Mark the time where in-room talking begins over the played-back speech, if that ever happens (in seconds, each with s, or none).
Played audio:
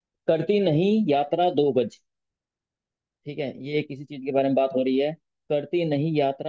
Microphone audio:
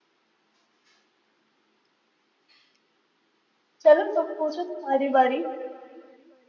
3.8 s